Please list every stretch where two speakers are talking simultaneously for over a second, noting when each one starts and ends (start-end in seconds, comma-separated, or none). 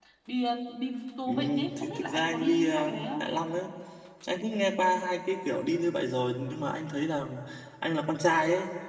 1.3-3.2